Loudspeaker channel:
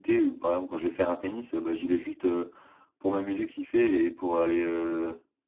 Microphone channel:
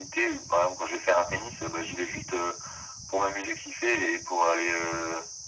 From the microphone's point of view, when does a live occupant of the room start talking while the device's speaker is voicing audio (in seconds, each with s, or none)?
none